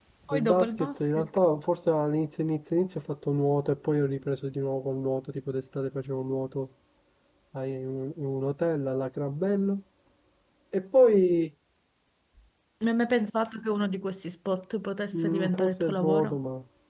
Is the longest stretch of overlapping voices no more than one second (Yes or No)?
No